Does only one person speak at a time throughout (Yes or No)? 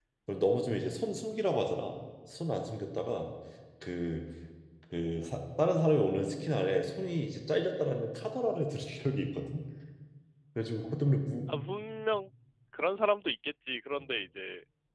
Yes